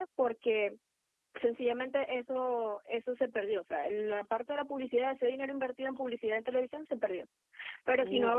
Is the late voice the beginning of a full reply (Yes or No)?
No